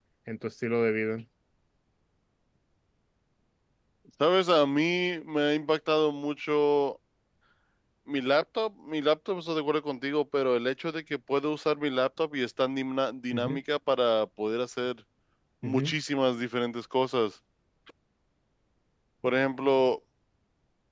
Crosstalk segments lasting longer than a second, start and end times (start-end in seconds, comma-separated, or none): none